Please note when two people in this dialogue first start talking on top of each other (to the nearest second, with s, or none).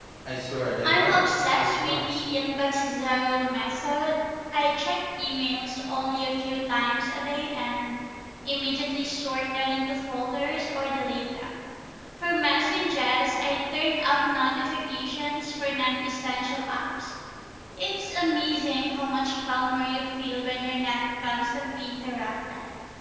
1 s